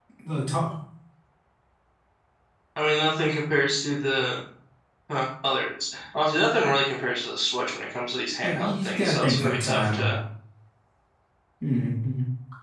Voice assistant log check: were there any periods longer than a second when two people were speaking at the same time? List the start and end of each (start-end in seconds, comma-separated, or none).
8.4-10.0